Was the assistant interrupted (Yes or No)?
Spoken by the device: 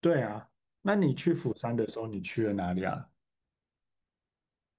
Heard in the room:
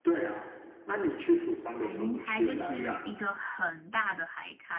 Yes